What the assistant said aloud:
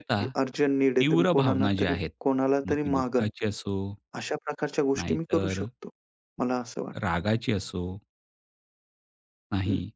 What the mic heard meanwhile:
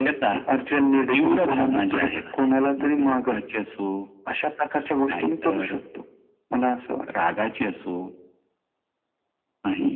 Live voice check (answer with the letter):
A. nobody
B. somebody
B